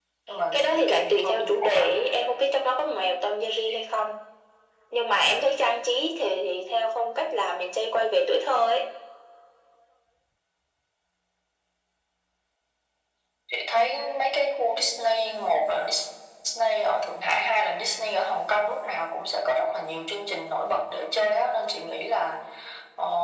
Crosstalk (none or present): present